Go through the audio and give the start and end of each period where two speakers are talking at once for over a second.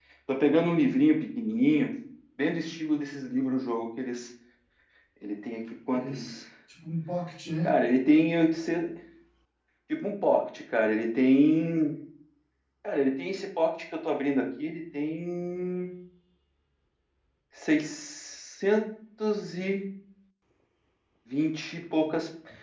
none

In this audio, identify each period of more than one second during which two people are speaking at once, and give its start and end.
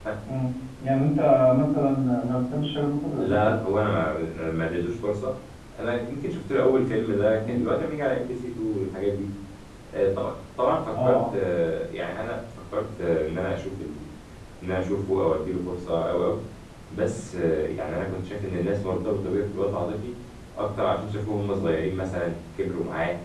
none

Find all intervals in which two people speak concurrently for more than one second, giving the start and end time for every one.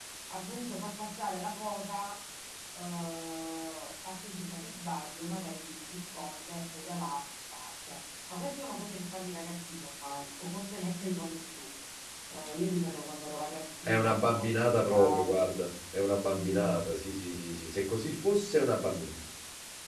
13.8-15.5

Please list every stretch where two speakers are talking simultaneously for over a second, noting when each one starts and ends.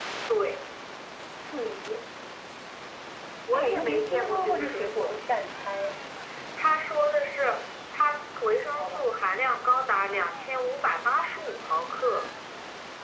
3.5-5.2

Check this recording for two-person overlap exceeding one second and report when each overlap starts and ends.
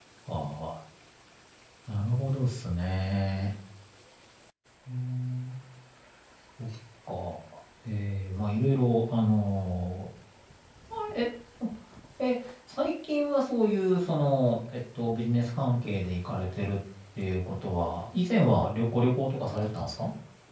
none

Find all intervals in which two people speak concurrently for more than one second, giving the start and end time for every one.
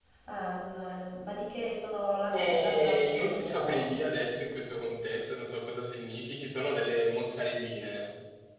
2.3-3.8

